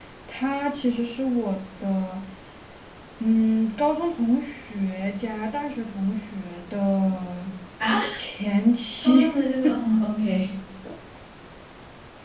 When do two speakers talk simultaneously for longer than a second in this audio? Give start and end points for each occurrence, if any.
none

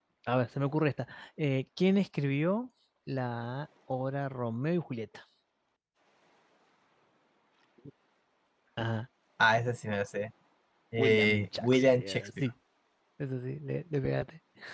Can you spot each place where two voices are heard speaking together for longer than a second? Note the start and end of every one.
11.0-12.3

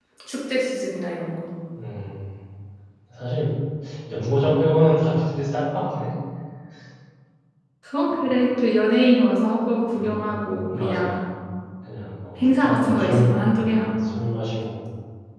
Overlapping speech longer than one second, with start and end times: 10.0-11.2, 12.4-14.2

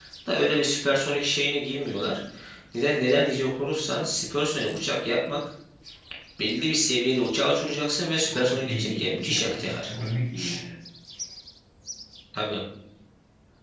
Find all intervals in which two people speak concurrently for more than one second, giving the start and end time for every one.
8.3-9.9

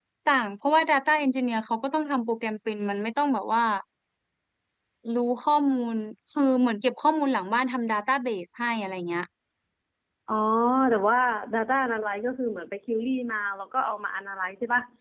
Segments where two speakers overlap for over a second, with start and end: none

